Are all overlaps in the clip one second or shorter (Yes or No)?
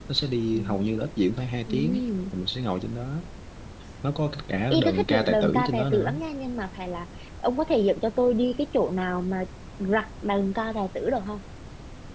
No